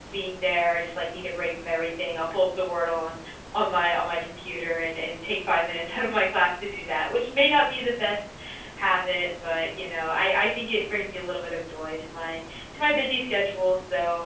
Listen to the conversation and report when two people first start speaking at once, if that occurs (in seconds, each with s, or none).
none